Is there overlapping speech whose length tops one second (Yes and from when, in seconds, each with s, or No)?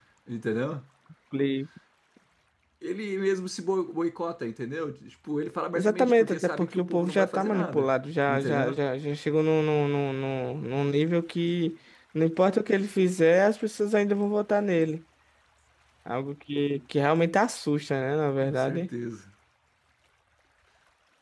Yes, from 5.7 s